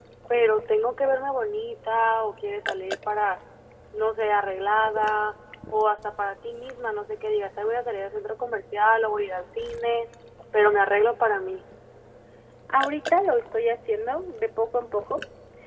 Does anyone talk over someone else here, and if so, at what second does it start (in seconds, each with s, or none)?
none